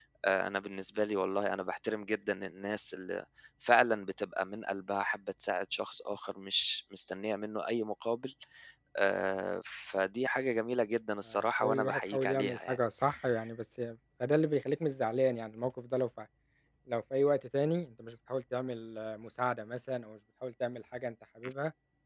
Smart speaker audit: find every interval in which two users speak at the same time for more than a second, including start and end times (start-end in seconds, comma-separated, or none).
11.3-12.8